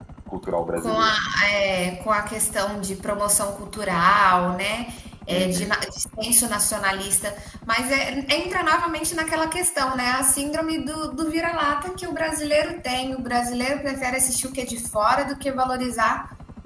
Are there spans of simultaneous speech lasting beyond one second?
No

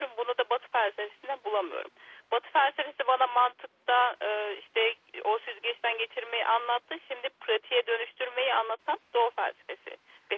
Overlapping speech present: No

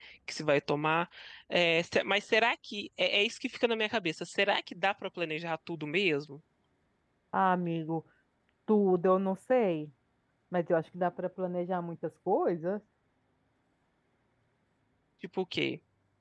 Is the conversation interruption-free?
Yes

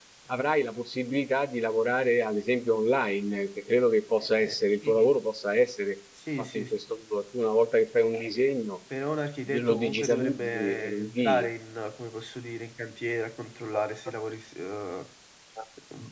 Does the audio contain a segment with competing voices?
Yes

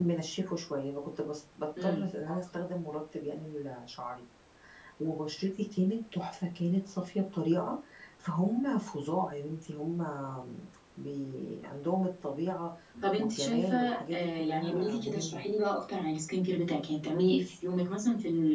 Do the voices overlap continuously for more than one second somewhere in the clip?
Yes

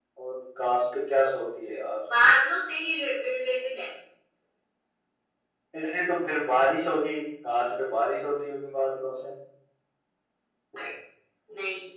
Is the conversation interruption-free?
Yes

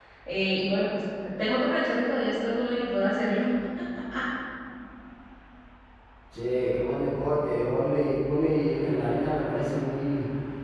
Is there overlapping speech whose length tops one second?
No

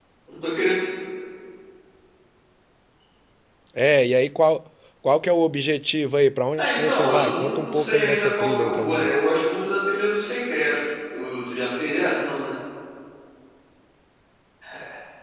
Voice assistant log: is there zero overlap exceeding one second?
No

